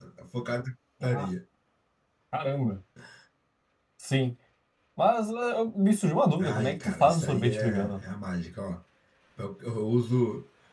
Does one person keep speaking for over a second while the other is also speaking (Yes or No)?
Yes